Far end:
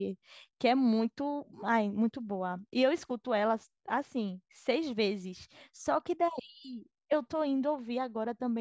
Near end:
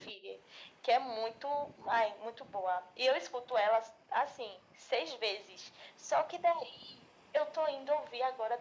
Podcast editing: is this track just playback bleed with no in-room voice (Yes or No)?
Yes